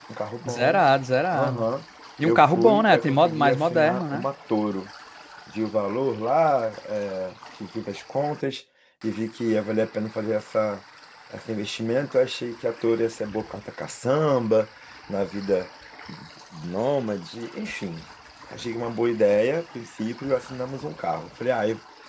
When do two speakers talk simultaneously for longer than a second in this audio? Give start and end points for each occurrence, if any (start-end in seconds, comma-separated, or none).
2.2-4.2